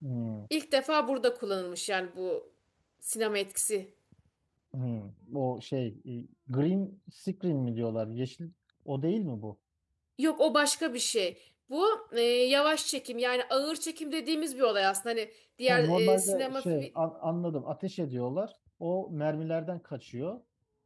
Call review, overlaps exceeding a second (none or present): present